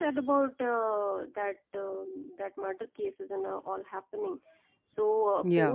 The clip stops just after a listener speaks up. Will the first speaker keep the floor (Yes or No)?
Yes